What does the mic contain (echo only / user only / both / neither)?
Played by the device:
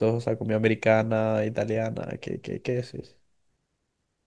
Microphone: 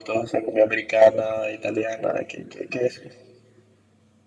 echo only